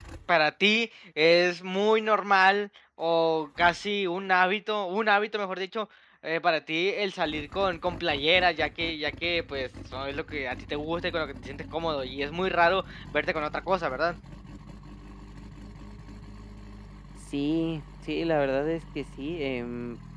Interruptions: none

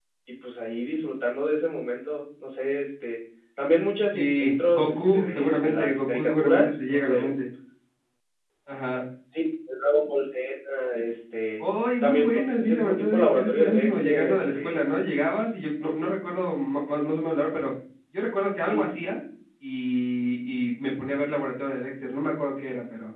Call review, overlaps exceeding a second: present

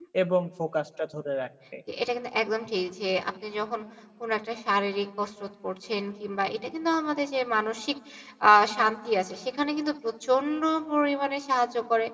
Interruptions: none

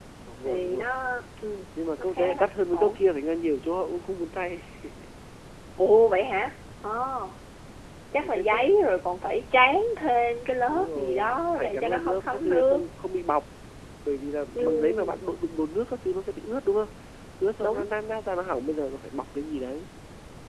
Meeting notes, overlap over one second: present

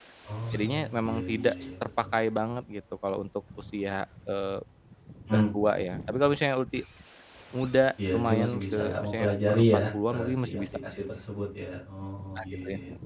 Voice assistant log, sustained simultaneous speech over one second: present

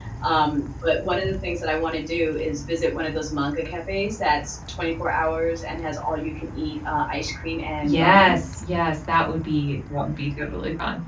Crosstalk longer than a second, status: none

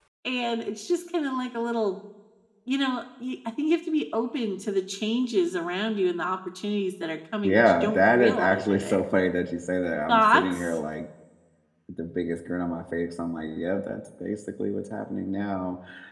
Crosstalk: present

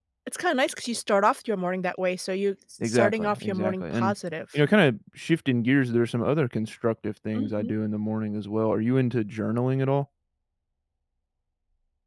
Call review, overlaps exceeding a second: present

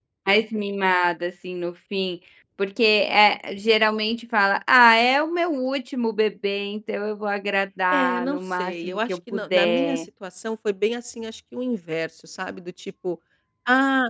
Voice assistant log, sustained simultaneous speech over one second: present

